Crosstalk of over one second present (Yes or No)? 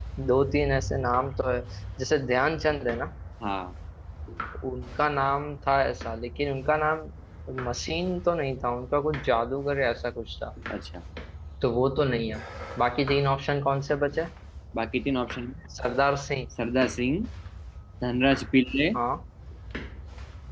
No